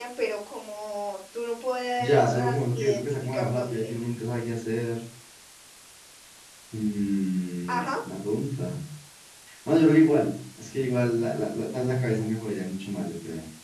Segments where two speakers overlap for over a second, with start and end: 2.0-3.9

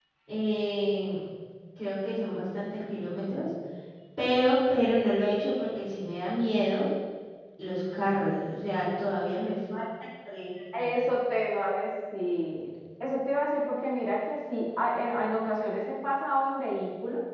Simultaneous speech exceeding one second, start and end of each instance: none

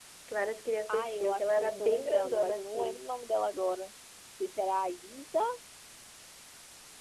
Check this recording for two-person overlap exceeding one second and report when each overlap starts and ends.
0.9-3.0

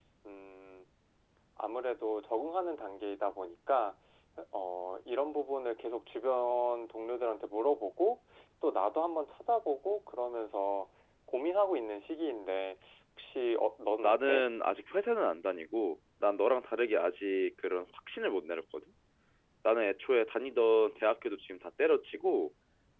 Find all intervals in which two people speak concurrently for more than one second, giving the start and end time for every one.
none

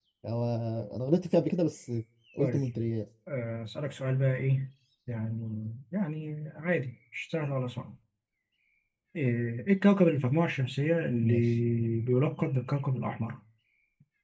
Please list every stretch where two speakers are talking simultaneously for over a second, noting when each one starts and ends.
none

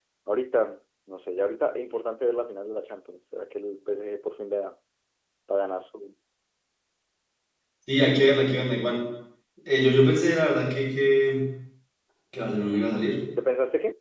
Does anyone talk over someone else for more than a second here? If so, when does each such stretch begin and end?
none

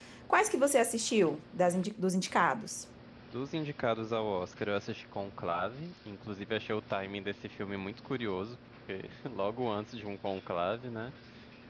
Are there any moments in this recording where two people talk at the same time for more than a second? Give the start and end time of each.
none

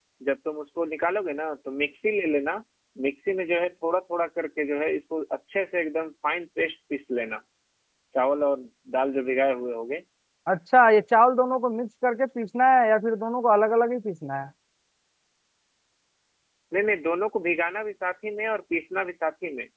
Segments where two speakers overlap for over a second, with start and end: none

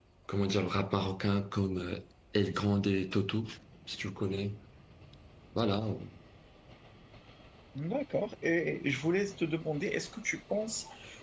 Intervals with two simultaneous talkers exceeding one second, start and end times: none

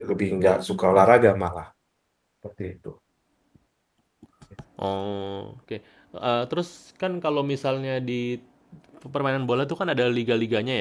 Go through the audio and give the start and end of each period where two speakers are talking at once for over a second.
none

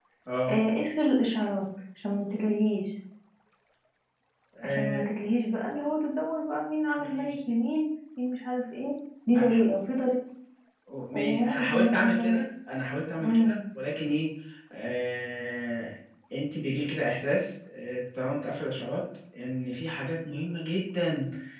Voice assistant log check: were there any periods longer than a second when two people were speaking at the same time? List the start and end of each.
11.1-12.4

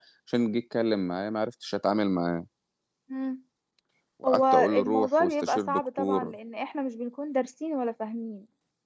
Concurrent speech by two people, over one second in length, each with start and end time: 4.2-6.3

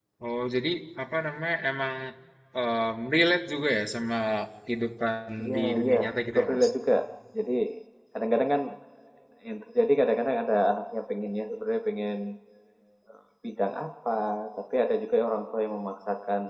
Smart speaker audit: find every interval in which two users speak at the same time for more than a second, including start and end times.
5.5-6.7

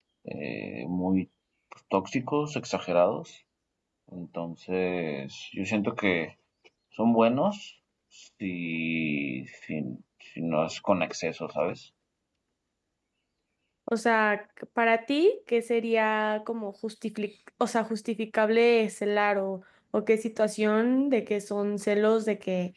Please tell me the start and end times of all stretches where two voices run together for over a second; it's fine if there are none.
none

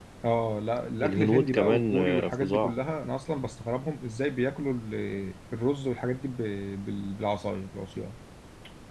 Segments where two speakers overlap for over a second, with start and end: 1.0-2.7

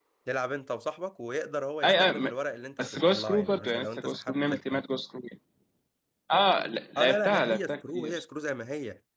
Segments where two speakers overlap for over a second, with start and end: 2.8-4.5, 7.0-8.2

